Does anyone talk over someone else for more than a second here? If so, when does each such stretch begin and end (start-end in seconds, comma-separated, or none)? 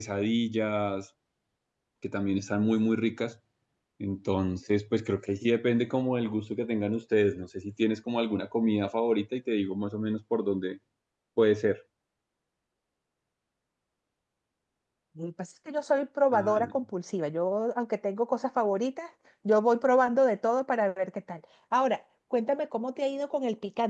none